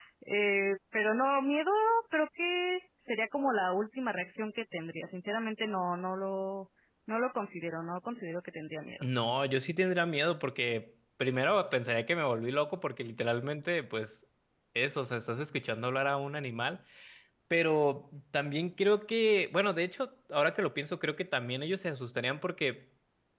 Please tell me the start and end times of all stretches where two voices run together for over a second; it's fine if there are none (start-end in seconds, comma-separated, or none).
none